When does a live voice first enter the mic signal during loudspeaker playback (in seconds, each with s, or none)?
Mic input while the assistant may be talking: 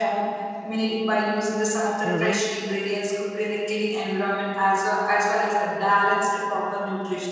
2.0 s